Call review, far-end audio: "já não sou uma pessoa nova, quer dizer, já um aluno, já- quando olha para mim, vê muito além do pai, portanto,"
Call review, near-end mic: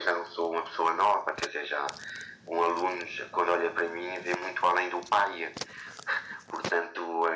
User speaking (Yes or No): No